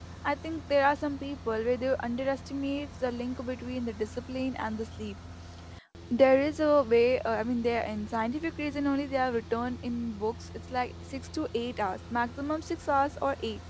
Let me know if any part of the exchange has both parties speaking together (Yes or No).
No